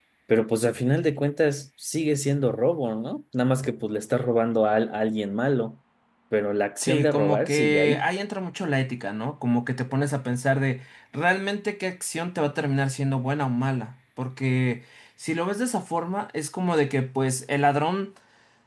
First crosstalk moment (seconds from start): 6.8 s

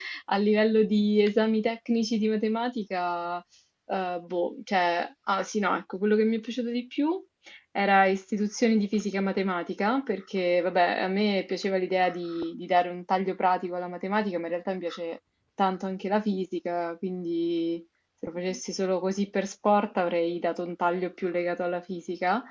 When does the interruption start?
none

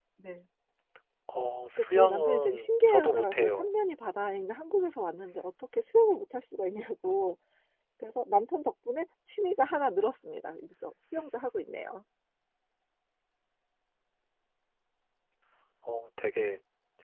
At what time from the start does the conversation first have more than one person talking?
1.8 s

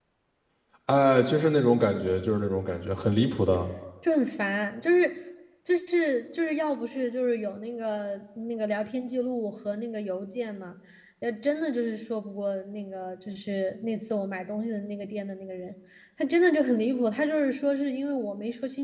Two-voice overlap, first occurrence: none

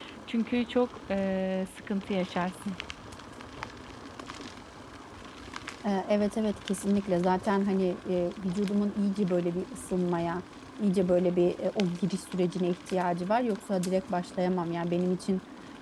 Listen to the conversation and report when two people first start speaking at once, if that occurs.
none

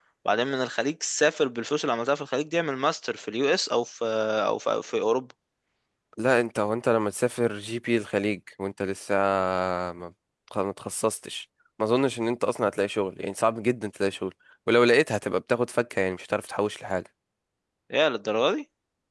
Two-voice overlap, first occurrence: none

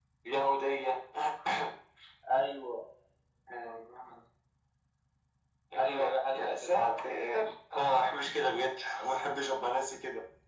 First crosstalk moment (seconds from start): 5.8 s

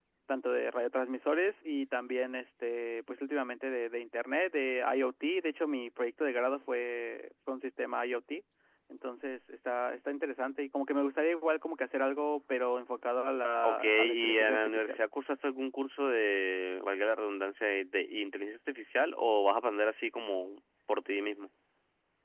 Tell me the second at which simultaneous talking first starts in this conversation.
13.6 s

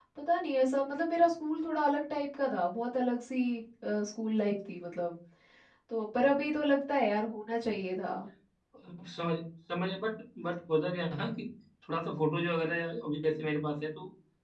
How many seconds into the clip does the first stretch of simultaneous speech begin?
none

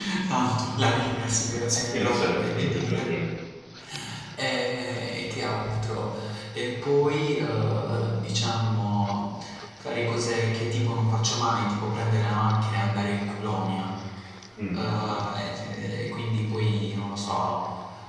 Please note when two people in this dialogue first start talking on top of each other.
1.9 s

